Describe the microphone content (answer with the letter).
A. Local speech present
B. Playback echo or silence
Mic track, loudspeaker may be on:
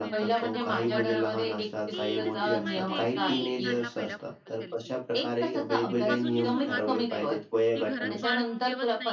A